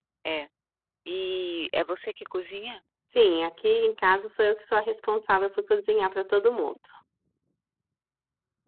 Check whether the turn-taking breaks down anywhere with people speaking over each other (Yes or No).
No